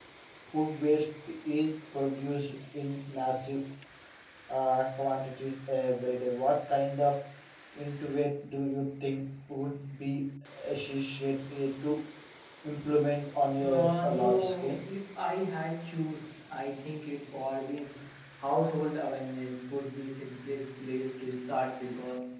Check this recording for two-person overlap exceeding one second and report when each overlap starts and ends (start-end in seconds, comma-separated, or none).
13.6-14.8